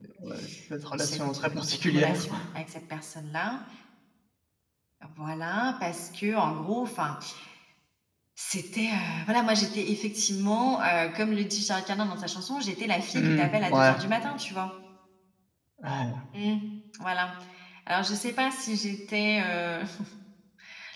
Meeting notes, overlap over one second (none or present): present